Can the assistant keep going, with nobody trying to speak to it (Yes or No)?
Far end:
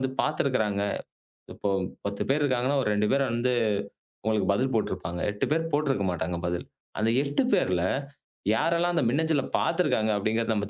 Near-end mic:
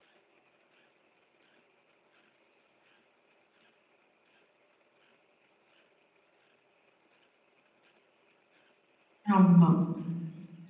No